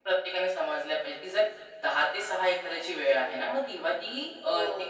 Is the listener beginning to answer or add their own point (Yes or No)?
No